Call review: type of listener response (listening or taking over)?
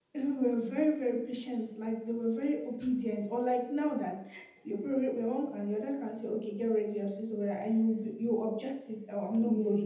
listening